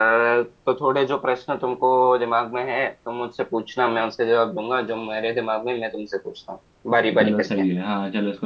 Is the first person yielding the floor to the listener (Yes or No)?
Yes